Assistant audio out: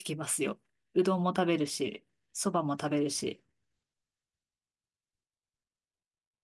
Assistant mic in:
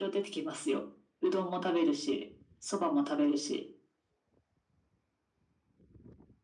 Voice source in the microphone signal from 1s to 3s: echo only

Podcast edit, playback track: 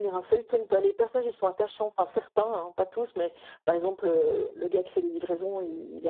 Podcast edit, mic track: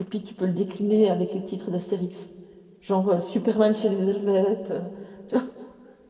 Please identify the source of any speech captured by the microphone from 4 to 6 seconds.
user only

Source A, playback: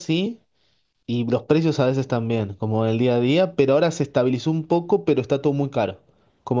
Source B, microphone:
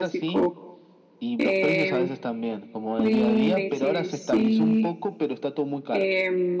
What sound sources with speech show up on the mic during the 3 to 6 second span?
both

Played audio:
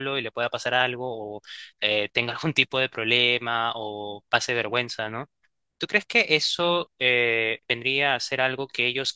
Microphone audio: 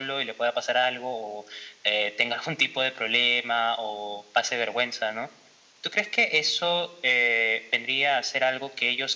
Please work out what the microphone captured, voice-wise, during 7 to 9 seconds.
echo only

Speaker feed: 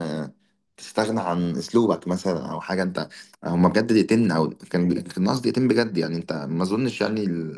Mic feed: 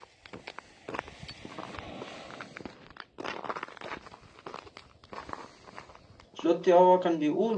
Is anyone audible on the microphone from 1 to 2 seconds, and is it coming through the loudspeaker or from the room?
neither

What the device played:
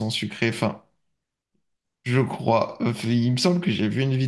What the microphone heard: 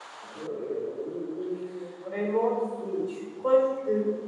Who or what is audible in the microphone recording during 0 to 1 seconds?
user only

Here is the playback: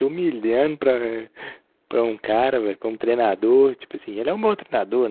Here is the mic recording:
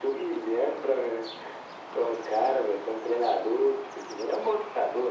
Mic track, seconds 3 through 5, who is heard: echo only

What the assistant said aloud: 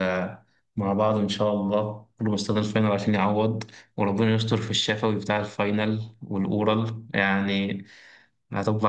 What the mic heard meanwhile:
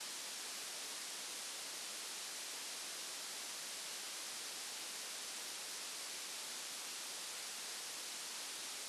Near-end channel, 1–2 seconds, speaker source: neither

